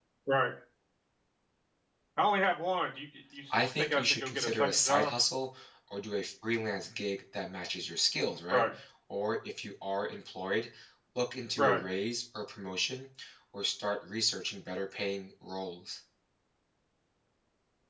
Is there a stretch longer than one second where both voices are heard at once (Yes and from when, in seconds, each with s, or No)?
Yes, from 3.8 s